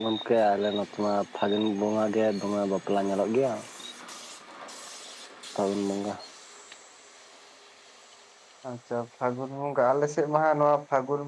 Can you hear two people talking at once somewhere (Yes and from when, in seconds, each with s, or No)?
No